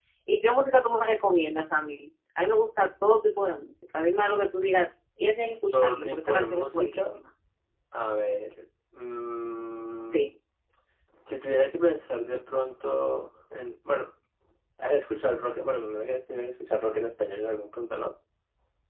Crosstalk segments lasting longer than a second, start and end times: 5.7-7.2

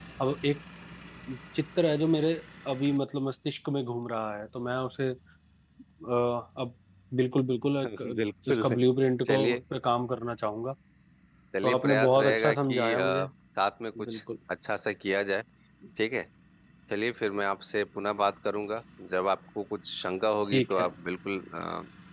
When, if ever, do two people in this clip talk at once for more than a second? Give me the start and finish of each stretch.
11.6-13.3

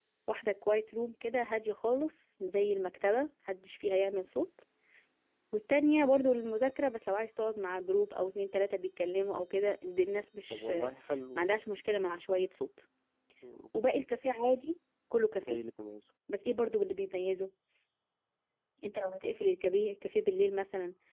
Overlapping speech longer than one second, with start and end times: none

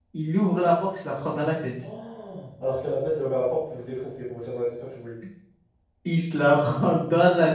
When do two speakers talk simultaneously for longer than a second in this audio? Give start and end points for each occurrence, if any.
none

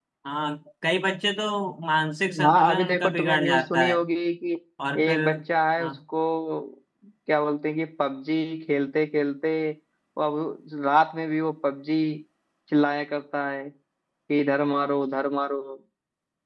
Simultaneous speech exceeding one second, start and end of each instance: 2.4-4.0

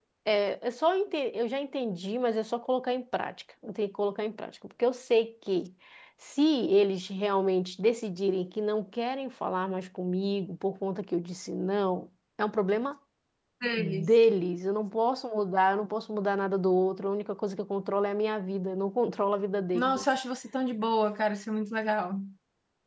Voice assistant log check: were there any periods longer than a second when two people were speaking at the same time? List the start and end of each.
none

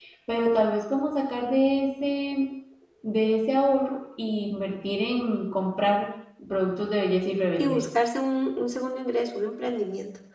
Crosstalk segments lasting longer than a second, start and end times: none

